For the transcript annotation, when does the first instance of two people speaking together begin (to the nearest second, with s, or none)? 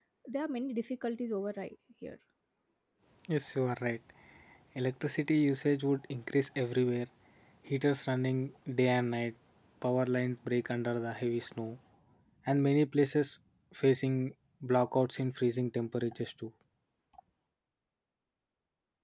none